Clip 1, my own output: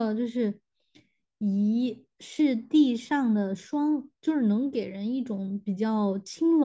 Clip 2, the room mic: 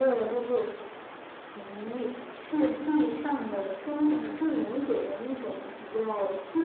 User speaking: Yes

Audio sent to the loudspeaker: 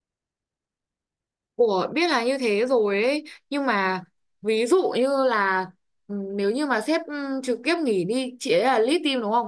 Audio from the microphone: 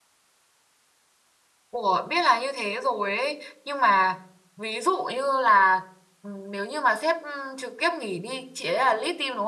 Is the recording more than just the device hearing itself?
No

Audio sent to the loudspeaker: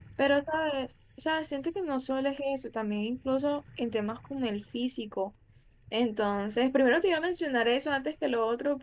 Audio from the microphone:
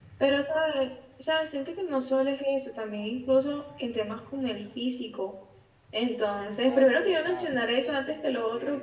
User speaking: Yes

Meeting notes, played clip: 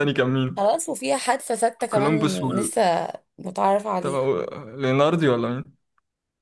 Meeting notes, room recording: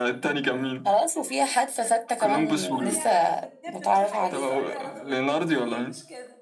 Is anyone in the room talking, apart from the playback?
Yes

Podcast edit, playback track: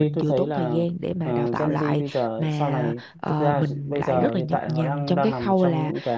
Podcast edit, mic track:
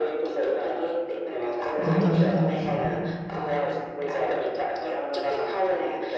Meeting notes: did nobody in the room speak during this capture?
No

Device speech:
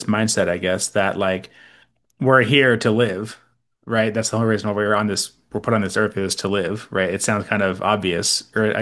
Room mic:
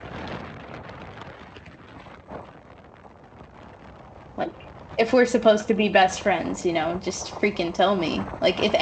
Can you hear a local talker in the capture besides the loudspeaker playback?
Yes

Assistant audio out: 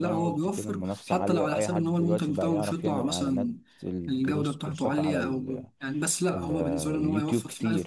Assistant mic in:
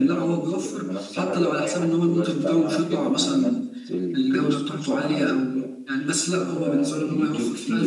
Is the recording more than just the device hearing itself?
No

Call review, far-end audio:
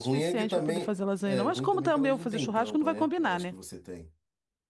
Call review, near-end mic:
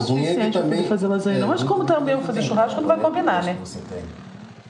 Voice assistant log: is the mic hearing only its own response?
Yes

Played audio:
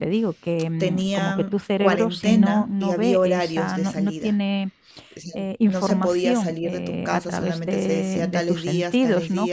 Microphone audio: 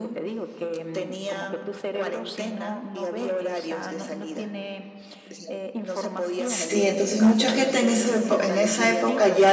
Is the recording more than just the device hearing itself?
Yes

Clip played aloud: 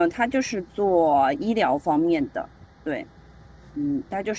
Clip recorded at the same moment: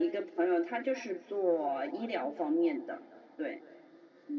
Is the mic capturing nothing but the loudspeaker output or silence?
Yes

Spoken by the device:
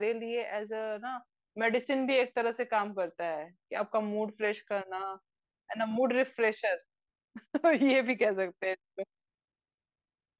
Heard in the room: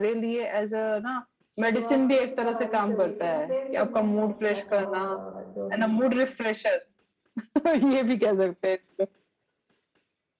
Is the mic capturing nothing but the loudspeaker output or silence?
No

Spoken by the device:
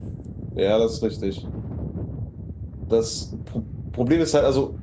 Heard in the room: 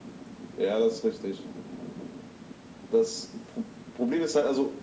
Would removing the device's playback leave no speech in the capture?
Yes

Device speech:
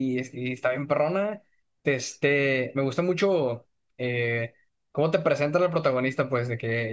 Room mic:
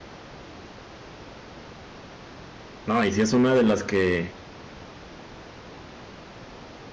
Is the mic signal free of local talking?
No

